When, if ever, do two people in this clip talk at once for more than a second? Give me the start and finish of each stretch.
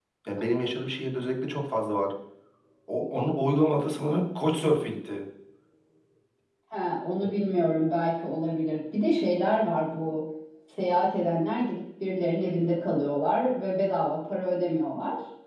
none

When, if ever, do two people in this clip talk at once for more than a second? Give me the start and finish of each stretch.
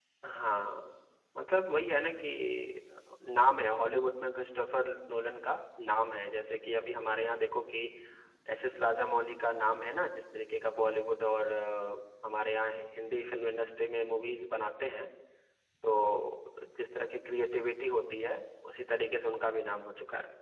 none

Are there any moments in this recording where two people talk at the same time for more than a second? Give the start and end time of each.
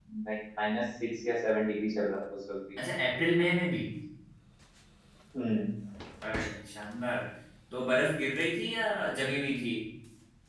none

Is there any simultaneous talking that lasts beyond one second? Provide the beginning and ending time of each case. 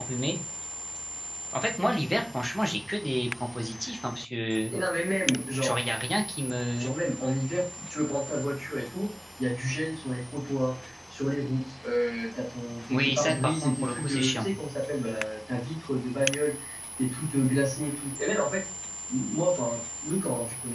12.9-14.5

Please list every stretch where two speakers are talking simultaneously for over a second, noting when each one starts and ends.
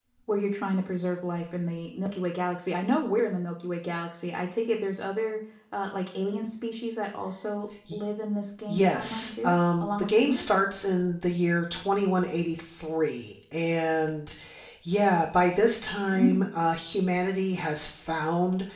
8.7-10.4

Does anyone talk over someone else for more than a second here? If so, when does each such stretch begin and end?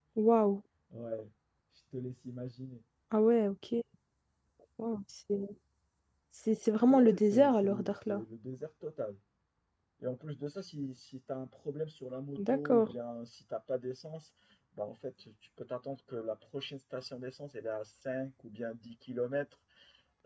6.9-8.2

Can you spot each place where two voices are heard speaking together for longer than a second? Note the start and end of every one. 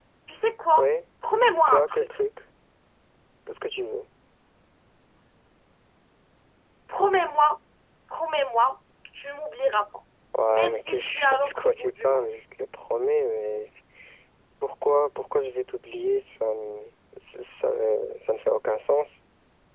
10.5-12.3

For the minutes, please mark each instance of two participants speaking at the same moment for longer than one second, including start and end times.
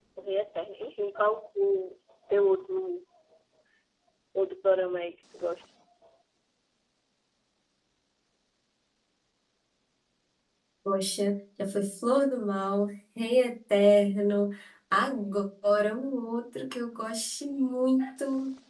none

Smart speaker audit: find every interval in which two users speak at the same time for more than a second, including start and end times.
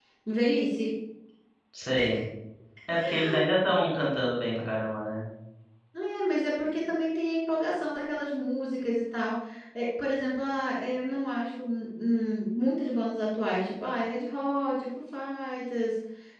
none

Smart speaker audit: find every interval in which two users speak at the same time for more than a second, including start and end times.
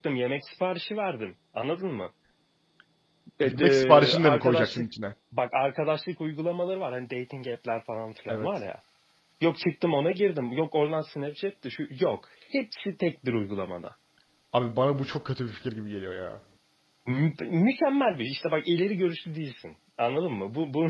3.4-4.8

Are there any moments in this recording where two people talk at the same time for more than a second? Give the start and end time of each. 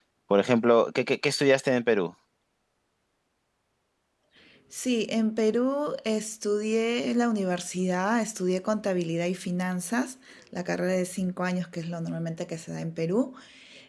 none

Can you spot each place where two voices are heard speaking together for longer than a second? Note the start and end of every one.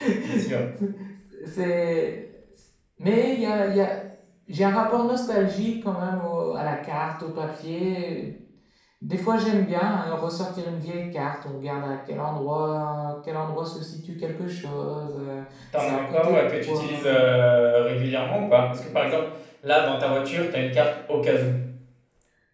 15.8-17.2

